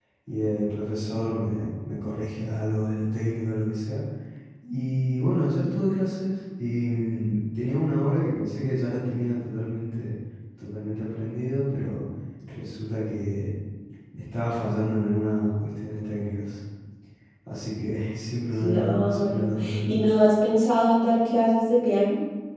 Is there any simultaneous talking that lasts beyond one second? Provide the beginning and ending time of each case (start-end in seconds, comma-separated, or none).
18.6-19.9